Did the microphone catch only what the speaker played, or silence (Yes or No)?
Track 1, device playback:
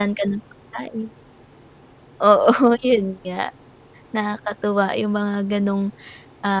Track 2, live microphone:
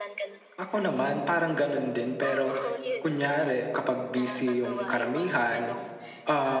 No